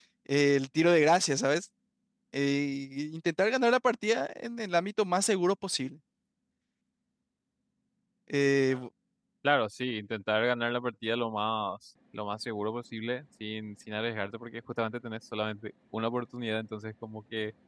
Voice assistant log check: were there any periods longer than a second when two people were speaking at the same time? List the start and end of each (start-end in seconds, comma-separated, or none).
none